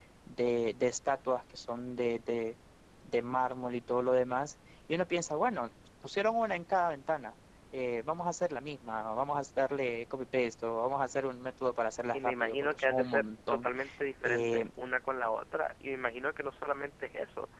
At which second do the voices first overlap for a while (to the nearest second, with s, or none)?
12 s